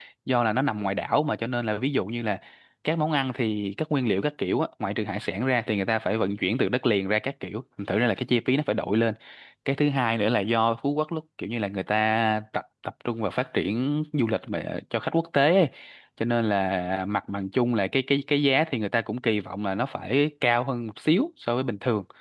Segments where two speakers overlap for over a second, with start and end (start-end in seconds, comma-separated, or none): none